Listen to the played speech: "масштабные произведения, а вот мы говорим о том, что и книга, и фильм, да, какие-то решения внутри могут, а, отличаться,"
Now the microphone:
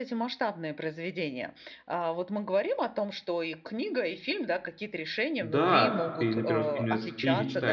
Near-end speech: present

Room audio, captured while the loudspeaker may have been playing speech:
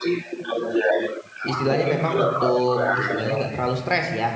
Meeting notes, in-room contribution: present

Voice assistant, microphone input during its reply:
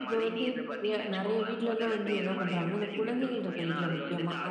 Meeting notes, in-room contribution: present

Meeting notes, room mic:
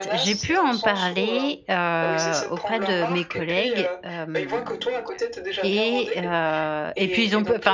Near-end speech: present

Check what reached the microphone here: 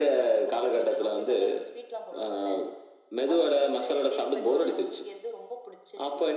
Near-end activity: none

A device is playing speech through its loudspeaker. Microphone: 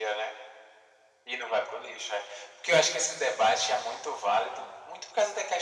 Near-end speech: none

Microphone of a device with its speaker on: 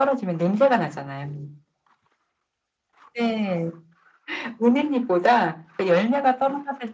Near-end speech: none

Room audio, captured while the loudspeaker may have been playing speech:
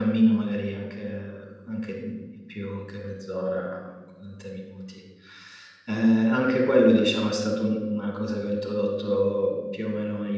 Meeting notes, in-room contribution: none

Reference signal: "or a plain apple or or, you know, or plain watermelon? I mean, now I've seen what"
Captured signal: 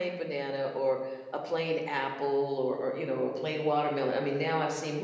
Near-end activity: none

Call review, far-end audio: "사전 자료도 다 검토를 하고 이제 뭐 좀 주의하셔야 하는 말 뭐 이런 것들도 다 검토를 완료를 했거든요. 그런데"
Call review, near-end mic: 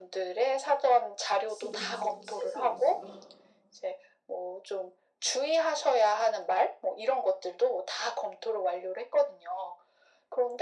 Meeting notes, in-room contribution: present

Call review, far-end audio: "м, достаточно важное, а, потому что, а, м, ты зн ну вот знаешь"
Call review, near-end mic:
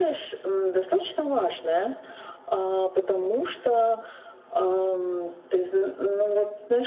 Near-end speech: none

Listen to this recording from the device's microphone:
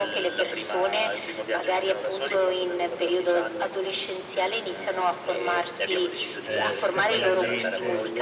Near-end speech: present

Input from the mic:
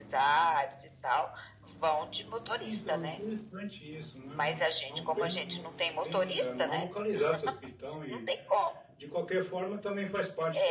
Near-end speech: present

